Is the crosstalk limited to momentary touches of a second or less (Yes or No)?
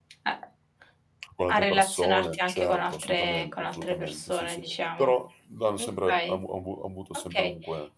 No